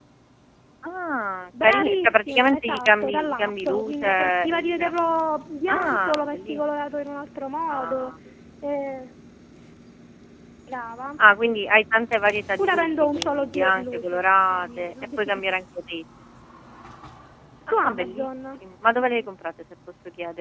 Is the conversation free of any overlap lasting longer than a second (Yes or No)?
No